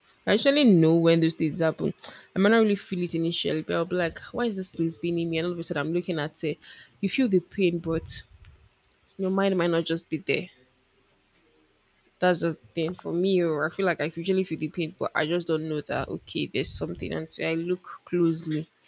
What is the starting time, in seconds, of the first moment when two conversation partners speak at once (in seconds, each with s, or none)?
none